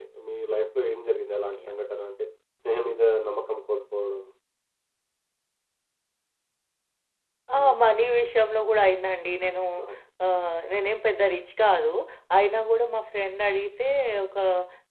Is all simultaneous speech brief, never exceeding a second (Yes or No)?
Yes